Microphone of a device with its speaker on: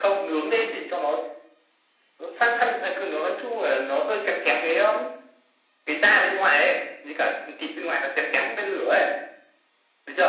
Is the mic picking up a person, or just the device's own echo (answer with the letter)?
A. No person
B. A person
A